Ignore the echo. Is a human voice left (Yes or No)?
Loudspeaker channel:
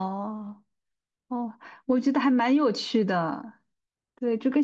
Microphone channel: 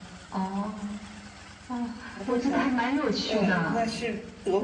Yes